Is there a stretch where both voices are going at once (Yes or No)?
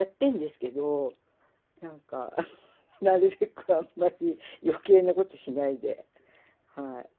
No